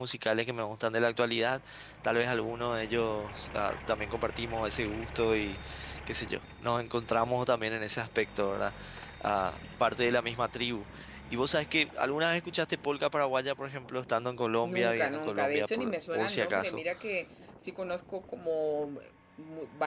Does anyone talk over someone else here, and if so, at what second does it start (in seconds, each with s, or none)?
14.6 s